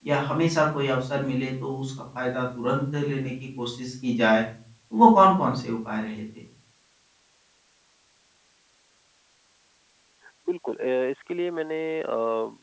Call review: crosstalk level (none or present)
none